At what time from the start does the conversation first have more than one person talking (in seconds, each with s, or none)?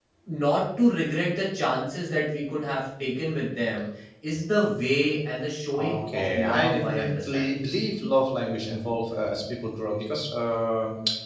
5.7 s